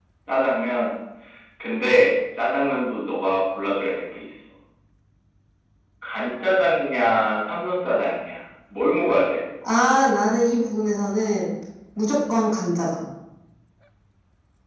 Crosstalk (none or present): none